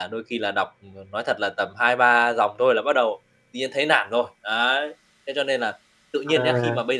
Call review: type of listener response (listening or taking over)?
listening